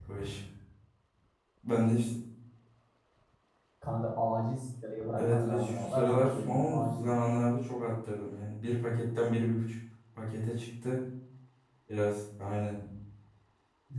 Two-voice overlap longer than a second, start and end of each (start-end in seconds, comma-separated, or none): 5.2-7.0